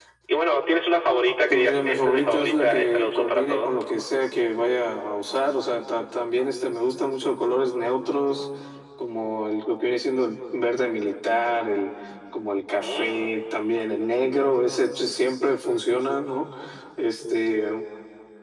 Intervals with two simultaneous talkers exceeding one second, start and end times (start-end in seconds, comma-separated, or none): 1.5-3.7